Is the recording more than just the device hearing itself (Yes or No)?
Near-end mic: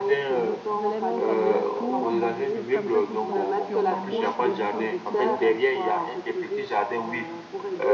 Yes